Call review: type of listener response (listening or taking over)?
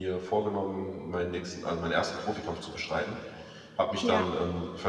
listening